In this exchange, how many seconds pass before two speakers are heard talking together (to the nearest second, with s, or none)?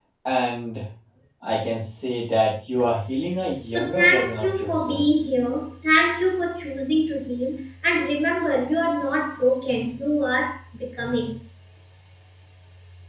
4 s